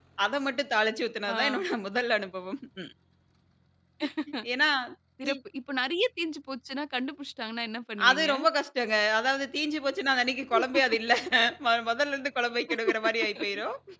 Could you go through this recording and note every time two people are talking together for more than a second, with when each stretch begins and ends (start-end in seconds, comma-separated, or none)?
none